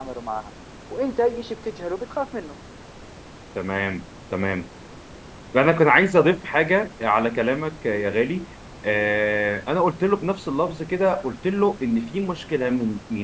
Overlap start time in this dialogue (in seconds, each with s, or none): none